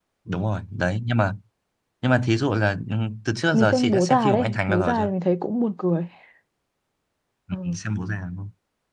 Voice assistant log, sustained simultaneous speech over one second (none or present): present